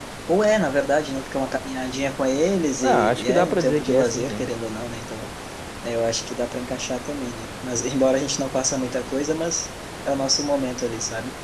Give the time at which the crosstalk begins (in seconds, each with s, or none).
2.8 s